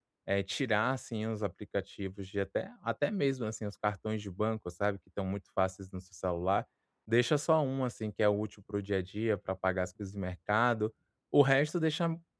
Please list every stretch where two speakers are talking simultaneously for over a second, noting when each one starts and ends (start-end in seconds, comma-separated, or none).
none